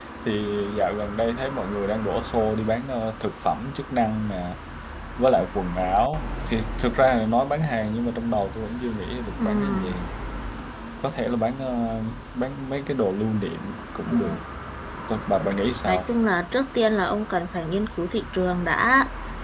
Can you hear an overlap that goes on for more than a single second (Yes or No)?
No